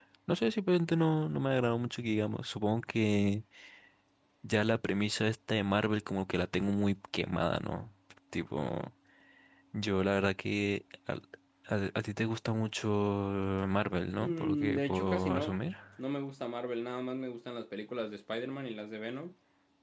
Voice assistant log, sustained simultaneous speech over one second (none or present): present